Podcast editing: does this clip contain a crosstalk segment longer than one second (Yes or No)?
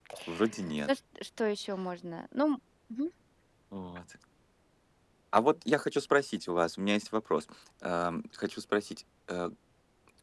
No